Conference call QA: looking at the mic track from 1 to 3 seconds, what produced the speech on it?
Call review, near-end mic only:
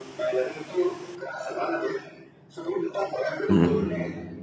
echo only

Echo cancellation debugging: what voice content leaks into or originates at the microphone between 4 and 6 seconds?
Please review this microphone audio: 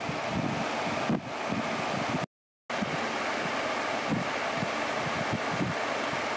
neither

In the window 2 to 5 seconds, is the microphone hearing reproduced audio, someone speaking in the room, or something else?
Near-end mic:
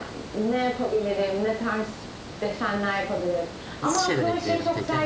both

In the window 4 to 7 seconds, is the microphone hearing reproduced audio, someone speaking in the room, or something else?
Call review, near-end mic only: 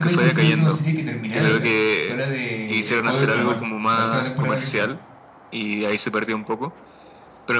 both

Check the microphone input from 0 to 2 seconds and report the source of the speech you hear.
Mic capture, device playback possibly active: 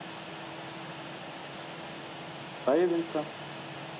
neither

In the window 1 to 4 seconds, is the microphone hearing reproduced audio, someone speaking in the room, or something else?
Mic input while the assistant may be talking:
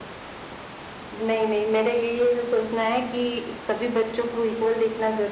echo only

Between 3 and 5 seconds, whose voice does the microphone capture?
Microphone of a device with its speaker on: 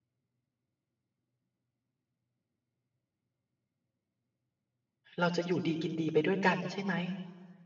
neither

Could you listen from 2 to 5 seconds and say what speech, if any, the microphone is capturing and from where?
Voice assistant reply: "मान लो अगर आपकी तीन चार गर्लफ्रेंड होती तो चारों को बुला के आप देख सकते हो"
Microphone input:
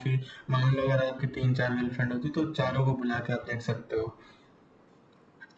echo only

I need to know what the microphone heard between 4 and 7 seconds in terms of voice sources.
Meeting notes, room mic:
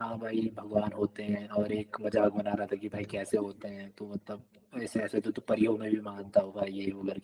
echo only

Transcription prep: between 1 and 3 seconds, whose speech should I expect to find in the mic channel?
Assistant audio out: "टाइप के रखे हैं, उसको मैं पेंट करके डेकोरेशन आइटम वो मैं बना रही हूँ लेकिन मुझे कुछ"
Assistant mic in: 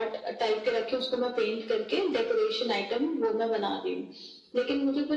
echo only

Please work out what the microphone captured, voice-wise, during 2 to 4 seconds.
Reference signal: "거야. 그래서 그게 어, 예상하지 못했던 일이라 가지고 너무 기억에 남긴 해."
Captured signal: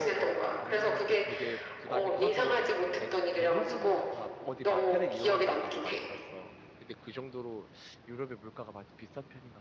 both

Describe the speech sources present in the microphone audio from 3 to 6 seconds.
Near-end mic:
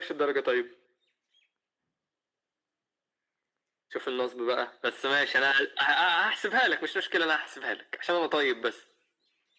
echo only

